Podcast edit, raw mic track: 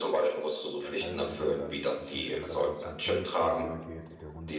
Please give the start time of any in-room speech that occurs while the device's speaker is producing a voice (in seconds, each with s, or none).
0.8 s